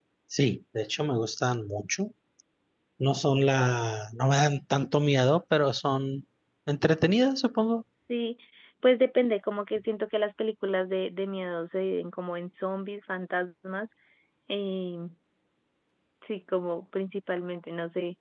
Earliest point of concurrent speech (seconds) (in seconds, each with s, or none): none